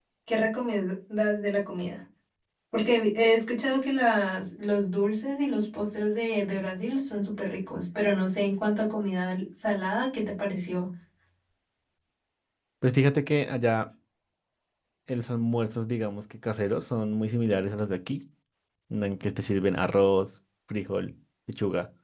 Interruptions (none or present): none